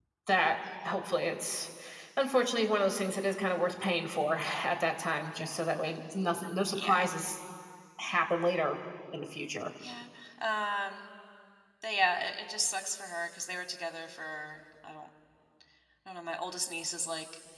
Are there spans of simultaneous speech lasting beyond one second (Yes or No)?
No